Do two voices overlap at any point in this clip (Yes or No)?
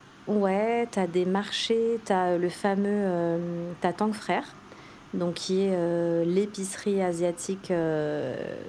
No